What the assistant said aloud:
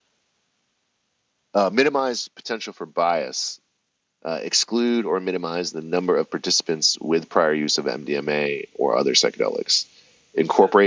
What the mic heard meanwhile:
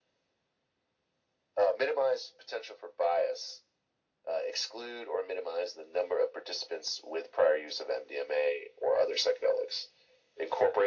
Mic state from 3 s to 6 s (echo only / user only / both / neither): echo only